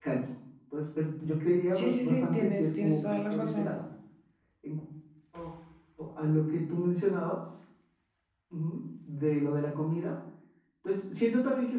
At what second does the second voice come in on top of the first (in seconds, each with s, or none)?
1.7 s